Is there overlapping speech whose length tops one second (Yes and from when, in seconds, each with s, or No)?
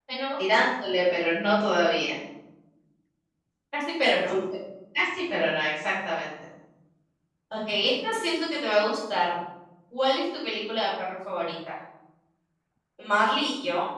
No